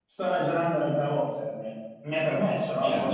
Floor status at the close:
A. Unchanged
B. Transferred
B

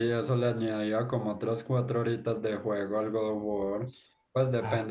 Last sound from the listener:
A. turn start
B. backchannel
B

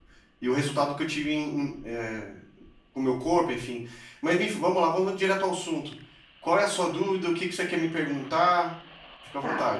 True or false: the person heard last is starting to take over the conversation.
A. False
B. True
B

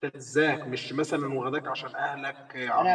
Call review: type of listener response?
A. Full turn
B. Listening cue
A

